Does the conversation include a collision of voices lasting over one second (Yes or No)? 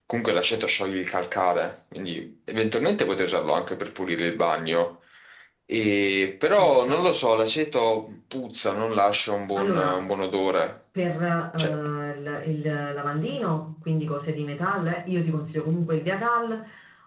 No